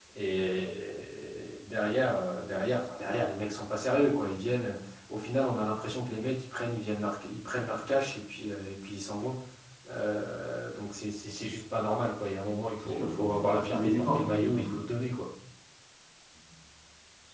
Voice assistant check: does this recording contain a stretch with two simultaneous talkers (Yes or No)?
Yes